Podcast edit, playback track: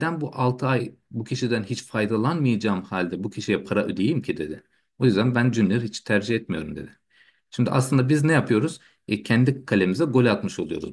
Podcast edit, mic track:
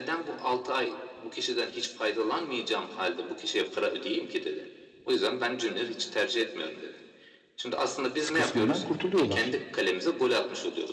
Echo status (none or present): present